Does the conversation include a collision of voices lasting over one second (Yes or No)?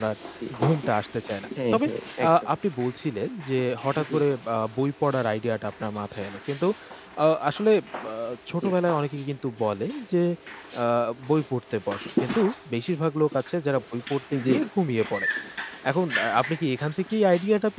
No